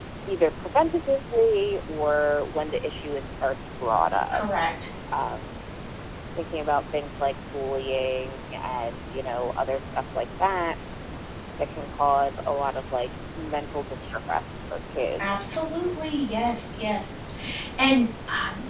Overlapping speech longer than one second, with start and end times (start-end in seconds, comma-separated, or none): none